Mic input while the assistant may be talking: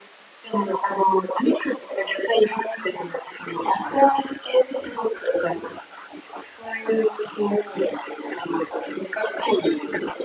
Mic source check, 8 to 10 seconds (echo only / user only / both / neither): echo only